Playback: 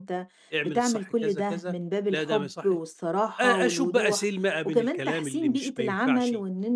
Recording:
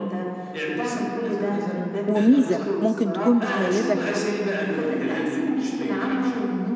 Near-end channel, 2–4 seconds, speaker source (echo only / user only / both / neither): both